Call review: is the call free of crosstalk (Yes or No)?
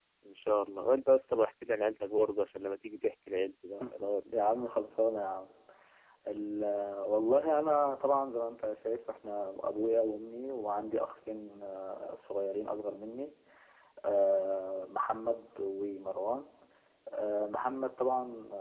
Yes